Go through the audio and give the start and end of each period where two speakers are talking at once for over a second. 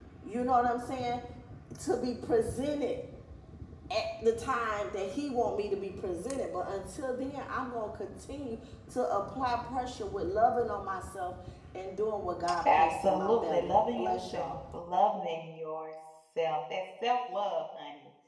12.7-14.6

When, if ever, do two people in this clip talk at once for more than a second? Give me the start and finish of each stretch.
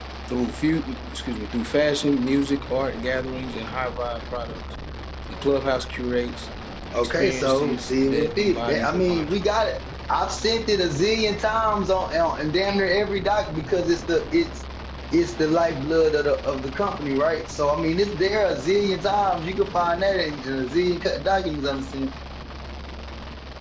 6.9-9.4

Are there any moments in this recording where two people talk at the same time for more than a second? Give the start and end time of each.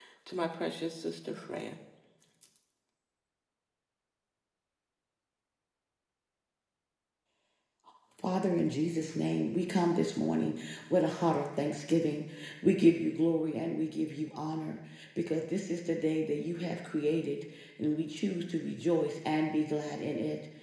none

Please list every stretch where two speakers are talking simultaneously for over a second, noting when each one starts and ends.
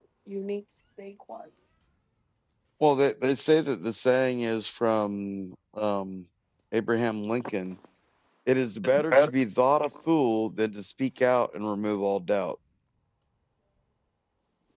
none

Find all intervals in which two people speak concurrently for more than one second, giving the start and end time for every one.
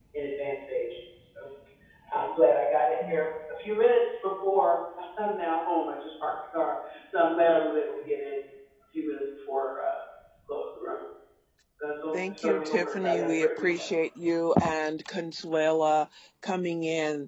12.3-13.8

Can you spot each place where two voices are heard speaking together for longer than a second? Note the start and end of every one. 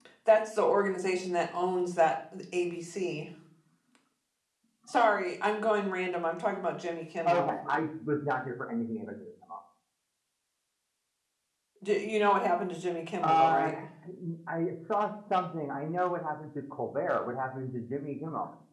none

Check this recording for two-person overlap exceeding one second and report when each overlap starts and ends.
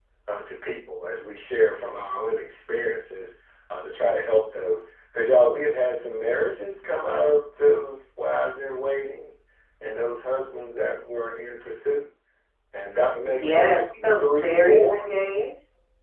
13.2-15.1

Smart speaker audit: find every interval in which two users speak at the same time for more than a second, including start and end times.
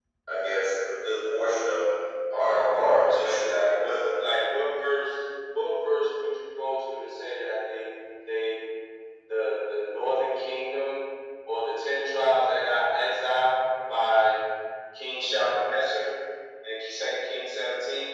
2.4-4.0

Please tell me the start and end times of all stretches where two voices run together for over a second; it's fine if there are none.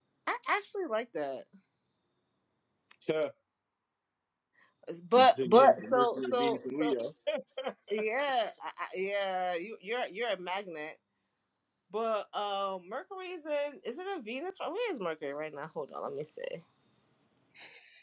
5.2-6.8

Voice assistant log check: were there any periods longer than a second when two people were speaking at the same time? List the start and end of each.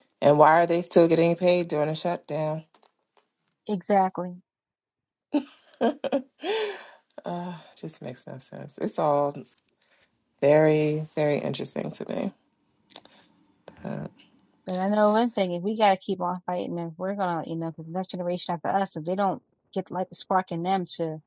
none

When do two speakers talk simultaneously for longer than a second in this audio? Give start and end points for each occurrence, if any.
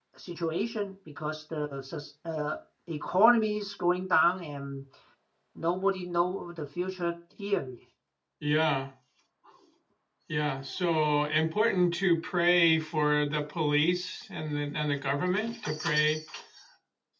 none

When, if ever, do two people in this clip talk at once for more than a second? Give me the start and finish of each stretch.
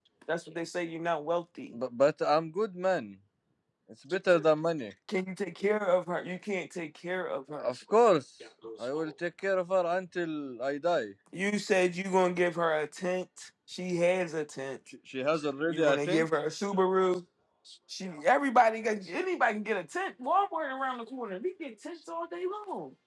none

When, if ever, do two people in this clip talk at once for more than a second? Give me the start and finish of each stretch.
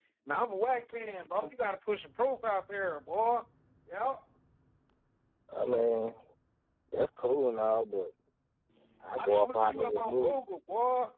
9.2-10.4

